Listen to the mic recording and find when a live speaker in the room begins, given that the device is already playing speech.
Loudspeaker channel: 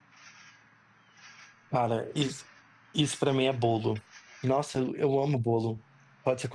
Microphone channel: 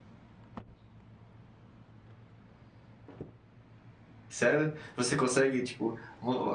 4 s

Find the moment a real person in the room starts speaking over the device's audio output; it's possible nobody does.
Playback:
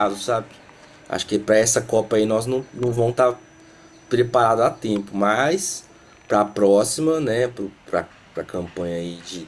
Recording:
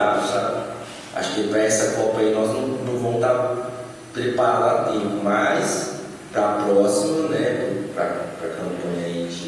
none

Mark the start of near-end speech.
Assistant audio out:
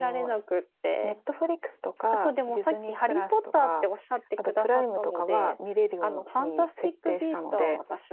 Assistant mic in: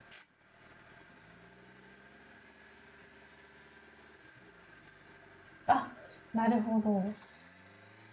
6 s

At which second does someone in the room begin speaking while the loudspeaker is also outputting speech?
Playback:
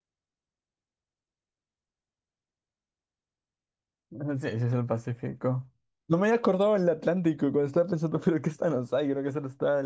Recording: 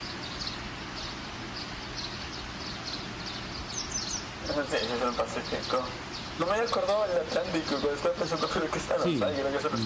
9 s

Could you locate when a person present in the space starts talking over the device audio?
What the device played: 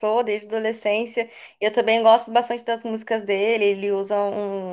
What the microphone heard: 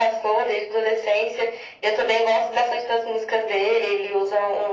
none

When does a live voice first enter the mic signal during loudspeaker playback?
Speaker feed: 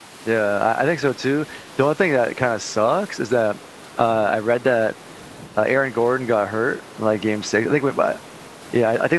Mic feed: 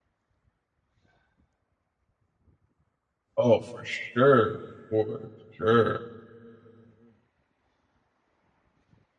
3 s

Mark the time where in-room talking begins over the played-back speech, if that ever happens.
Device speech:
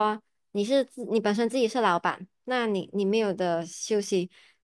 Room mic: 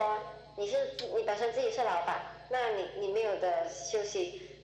none

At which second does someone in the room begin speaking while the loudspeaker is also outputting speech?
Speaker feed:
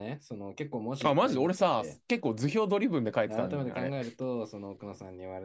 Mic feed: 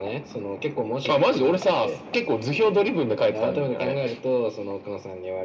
none

